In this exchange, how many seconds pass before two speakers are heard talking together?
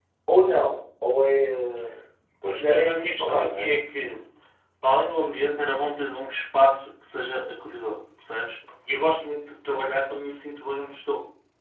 2.5 s

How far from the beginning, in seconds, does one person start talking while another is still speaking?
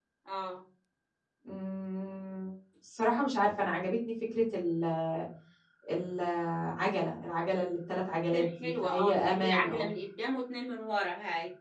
8.3 s

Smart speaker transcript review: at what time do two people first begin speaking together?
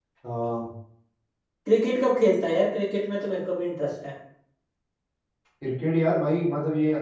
none

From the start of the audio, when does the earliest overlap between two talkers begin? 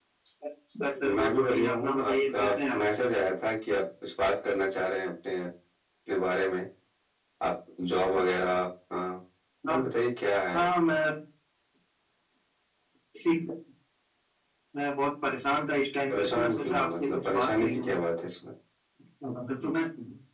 1.0 s

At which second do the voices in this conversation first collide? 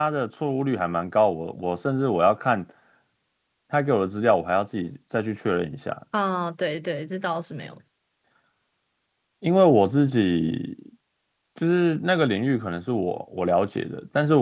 none

